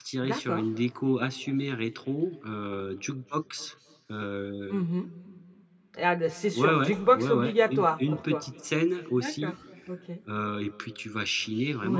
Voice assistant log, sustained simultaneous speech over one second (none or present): present